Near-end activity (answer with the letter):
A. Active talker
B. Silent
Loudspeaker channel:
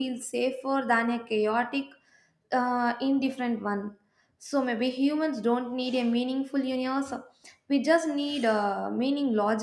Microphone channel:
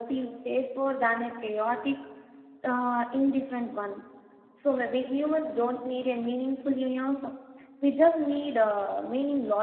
B